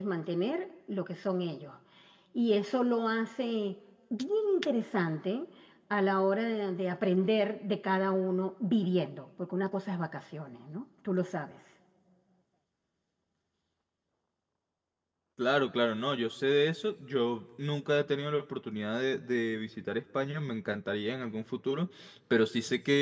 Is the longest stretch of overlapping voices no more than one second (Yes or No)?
Yes